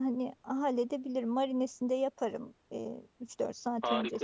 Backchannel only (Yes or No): No